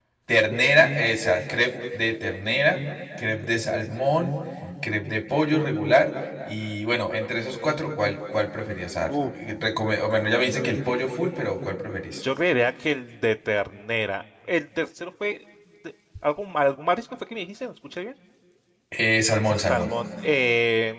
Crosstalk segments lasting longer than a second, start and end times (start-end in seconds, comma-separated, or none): none